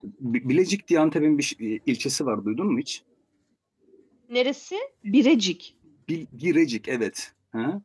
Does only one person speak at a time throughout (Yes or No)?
Yes